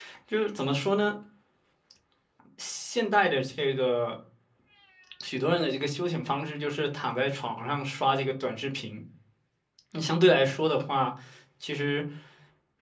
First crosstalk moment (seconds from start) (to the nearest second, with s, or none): none